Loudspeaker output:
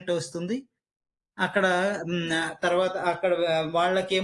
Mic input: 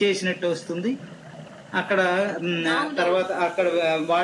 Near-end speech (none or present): present